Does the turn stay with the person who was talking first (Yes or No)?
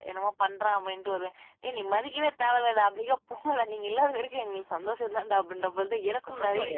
No